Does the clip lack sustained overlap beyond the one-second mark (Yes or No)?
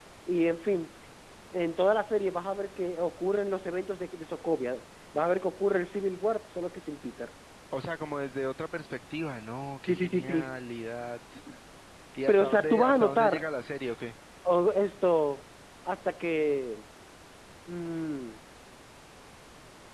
No